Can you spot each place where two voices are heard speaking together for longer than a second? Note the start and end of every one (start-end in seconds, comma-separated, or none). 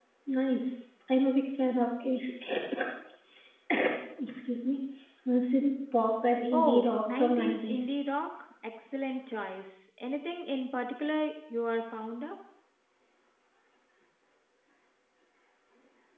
6.5-7.8